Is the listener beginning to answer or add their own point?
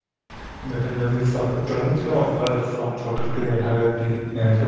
No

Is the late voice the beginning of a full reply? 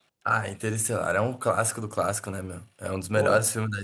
No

